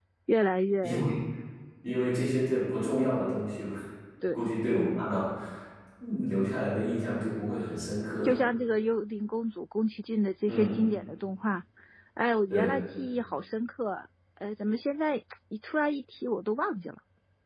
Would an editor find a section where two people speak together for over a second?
No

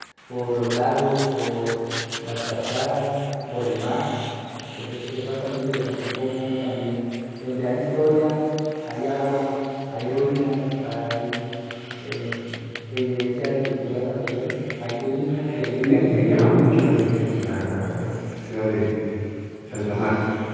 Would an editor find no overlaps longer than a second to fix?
No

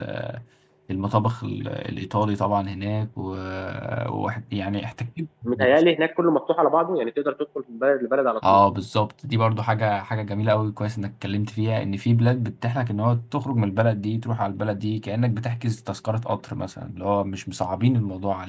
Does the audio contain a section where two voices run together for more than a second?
No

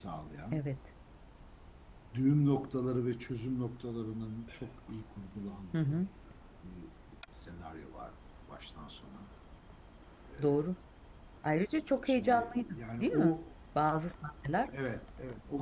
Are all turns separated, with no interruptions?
No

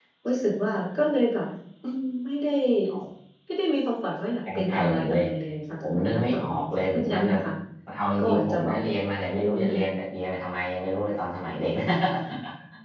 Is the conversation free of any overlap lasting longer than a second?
No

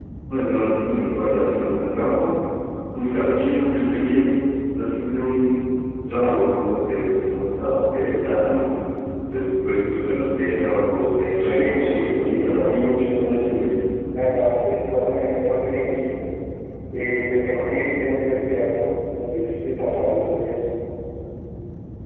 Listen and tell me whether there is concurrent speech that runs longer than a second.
Yes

